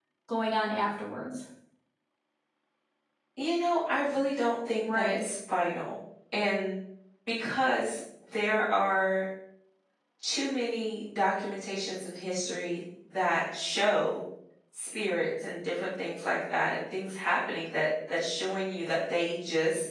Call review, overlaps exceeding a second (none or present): none